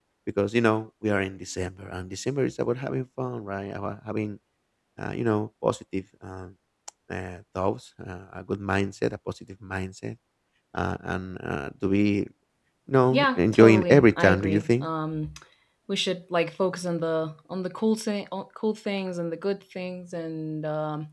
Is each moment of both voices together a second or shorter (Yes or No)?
No